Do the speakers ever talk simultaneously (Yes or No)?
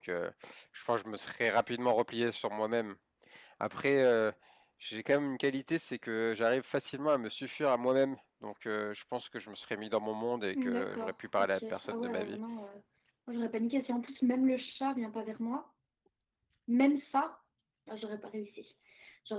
Yes